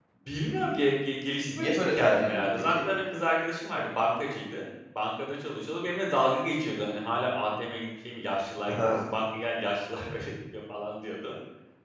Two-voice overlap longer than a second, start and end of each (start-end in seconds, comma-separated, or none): 1.5-2.9